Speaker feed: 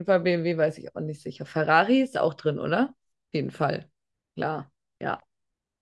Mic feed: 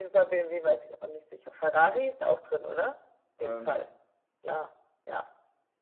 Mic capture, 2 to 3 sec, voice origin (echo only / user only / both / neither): echo only